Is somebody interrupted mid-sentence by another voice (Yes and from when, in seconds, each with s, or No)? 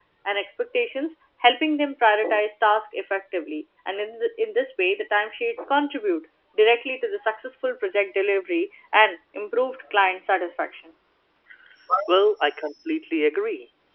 No